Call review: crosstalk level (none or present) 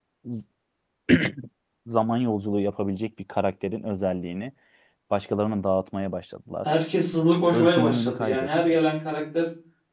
present